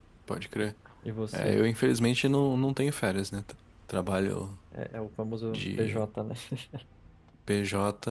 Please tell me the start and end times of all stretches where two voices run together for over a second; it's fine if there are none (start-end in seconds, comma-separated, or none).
none